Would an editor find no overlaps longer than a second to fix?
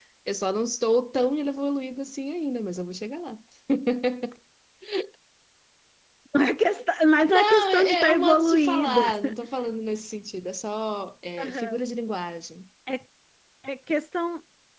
No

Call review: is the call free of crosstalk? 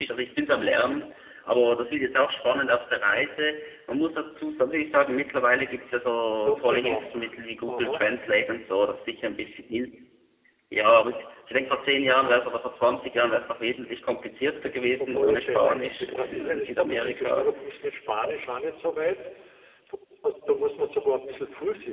No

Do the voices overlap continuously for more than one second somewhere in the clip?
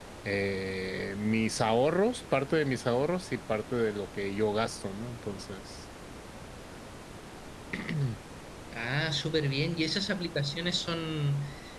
No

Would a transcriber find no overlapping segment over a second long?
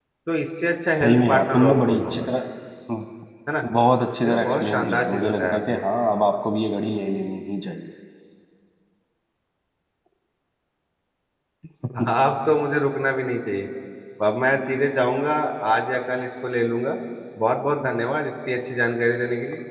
No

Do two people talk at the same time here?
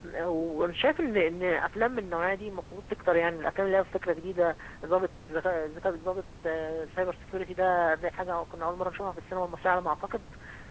No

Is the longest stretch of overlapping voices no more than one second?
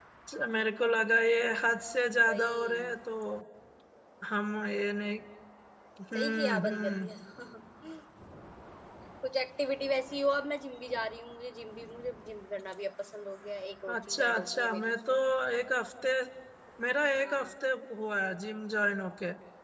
No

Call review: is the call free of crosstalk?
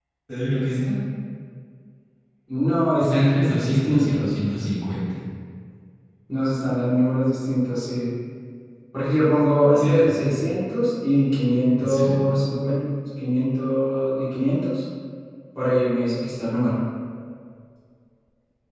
No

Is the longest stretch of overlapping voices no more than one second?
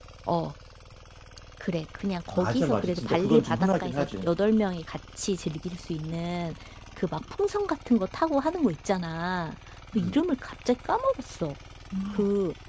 No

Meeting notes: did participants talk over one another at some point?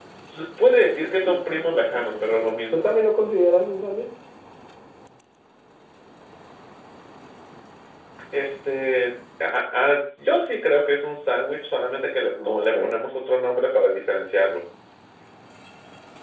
Yes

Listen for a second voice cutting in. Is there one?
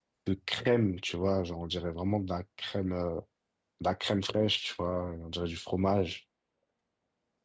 No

